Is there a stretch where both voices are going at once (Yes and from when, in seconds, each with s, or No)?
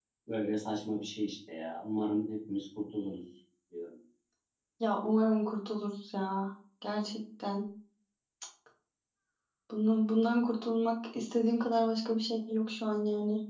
No